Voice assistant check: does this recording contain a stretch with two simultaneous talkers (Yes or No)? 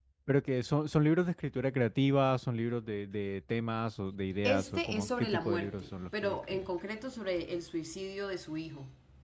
Yes